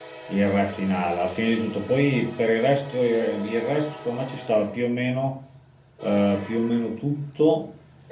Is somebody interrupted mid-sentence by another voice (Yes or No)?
No